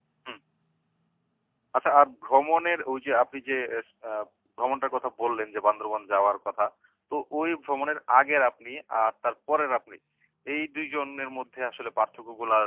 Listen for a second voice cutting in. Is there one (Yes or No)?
No